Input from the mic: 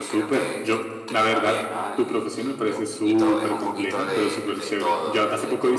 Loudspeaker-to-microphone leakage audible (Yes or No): Yes